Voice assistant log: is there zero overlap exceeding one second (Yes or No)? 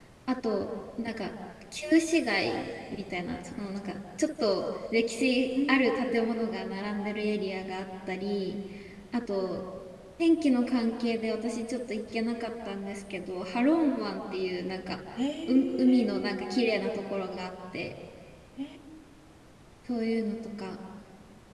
No